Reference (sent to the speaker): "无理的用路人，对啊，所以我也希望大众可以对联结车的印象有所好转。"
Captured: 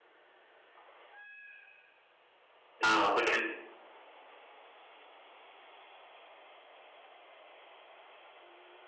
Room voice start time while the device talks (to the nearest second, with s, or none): 3 s